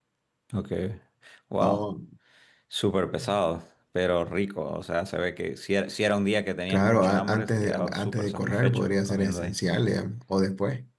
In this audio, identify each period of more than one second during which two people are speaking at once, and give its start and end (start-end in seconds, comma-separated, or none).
6.7-9.6